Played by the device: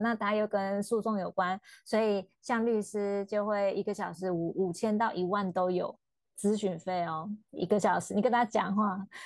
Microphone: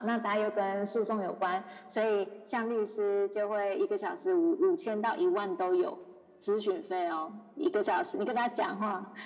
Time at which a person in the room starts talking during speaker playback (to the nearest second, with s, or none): none